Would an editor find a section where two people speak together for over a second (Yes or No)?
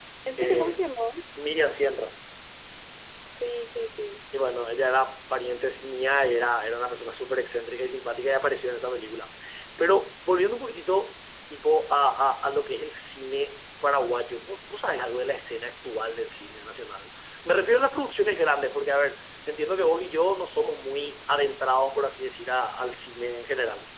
No